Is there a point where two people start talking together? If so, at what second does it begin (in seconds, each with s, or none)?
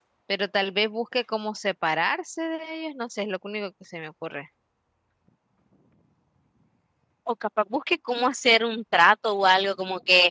none